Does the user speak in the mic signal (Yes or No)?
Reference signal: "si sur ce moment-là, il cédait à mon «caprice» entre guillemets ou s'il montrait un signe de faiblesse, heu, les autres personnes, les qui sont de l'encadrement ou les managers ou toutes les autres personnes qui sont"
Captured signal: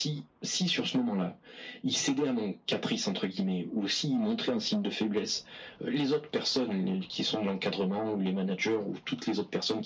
No